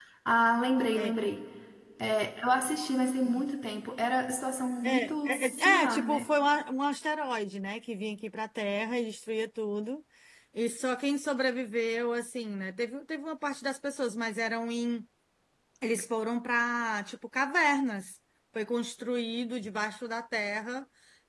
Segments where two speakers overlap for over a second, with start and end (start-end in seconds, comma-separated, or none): 4.8-6.3